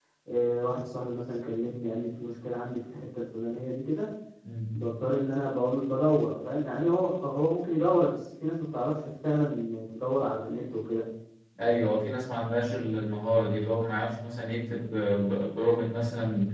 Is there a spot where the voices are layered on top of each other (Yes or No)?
No